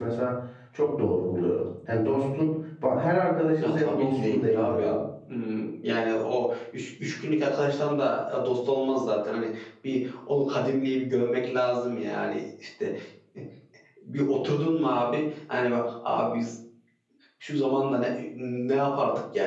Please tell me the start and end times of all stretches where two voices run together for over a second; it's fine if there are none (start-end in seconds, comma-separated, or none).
3.6-5.0